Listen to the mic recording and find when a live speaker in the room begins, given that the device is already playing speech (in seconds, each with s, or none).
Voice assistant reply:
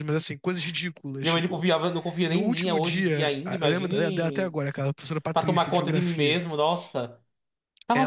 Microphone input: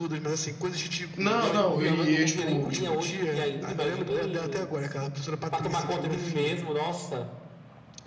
1.2 s